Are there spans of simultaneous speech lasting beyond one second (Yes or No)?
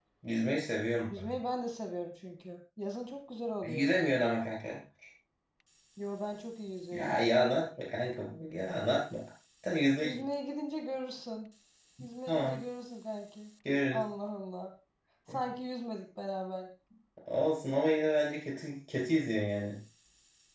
No